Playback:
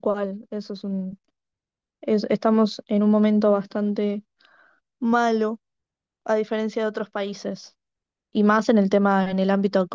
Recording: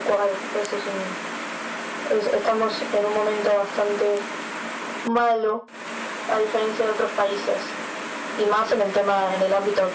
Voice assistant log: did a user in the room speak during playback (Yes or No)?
No